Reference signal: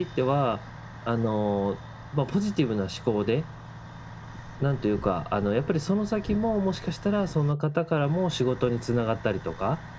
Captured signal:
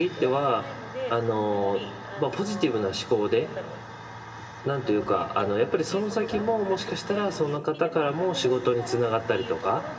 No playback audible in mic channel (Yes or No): No